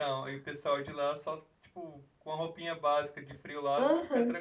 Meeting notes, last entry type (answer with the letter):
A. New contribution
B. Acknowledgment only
A